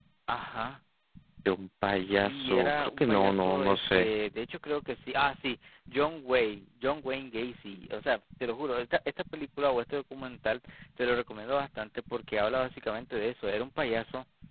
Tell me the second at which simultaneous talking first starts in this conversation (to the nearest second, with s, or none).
2 s